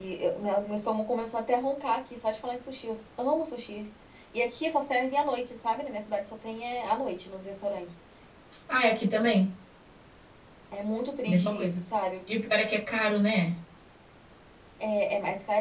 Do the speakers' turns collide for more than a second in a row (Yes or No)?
No